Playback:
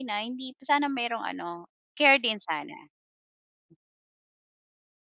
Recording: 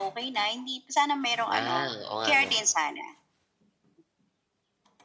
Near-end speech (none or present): present